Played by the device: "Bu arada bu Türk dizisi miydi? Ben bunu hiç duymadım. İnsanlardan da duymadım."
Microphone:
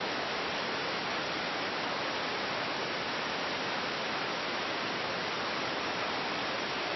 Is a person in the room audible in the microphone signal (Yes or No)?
No